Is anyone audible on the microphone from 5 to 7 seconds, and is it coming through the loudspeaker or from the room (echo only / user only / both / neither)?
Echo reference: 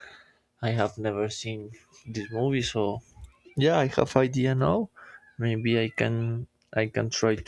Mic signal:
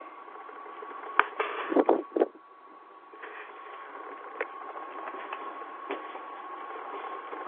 neither